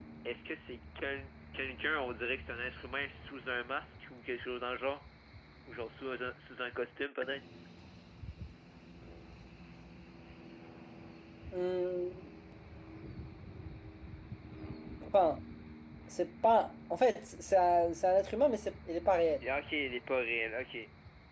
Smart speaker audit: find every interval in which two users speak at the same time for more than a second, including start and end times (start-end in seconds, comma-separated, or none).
none